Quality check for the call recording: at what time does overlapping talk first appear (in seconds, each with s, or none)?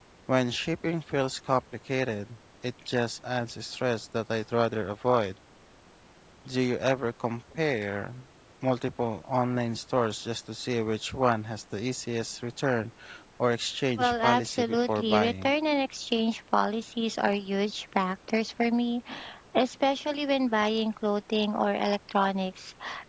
14.0 s